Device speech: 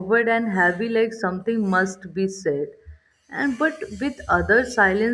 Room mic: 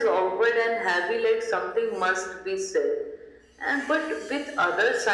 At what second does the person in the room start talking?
none

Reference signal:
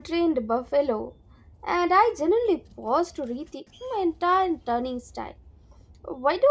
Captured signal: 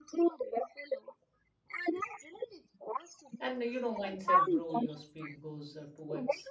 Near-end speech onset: 3.4 s

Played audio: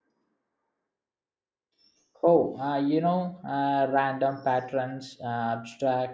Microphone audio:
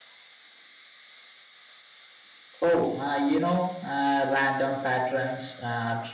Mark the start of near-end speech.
none

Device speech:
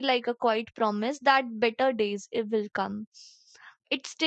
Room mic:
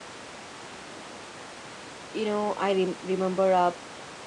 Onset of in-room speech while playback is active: 2.1 s

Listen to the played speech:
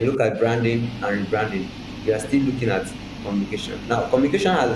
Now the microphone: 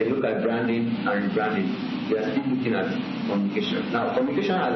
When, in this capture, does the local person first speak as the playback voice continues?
none

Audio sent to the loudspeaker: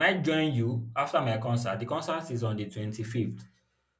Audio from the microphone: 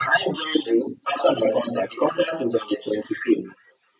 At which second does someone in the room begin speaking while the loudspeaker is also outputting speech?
none

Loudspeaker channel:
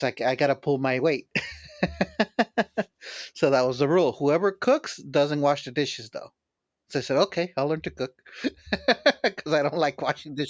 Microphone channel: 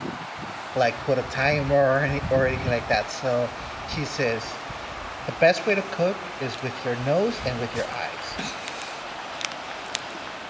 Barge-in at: 0.7 s

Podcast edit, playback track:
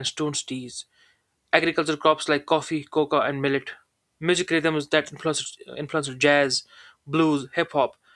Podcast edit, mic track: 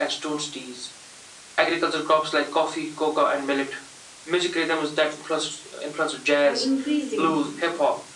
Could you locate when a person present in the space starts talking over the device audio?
6.4 s

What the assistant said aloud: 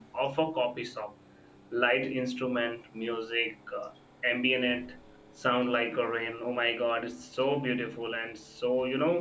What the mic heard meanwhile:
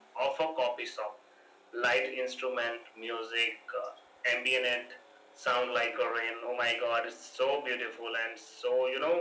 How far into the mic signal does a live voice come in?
none

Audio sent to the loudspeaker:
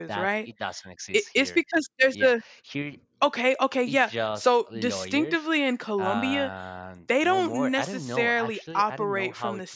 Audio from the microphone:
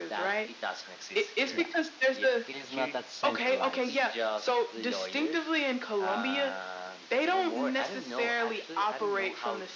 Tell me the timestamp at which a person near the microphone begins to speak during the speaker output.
1.5 s

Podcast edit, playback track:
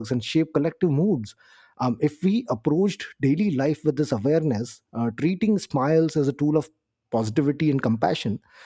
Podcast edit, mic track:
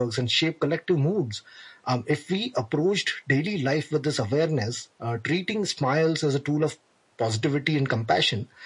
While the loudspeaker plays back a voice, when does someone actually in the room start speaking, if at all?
none

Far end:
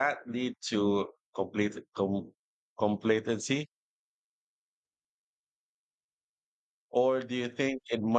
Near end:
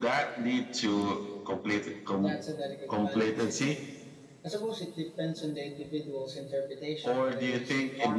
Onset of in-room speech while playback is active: 2.1 s

